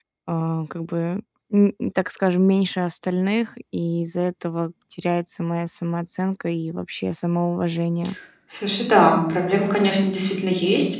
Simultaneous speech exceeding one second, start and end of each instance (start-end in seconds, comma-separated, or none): none